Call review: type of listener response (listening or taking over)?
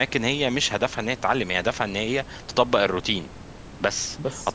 listening